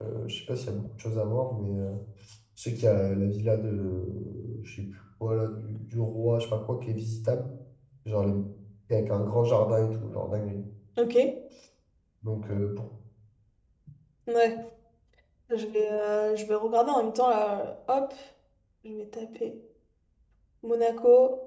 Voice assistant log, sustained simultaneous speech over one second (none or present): none